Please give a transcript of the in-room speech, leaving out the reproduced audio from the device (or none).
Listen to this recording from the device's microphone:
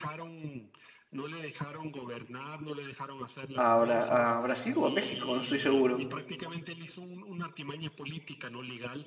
a, Bra- a Brasil o a México, no estoy seguro.